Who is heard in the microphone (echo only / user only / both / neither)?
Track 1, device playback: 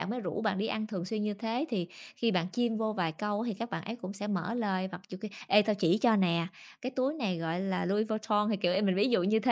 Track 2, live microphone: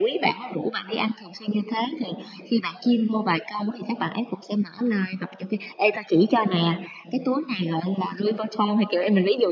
echo only